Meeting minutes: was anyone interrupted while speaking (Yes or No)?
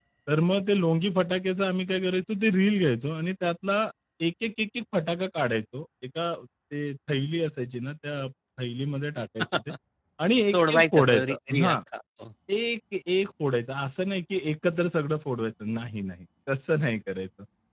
Yes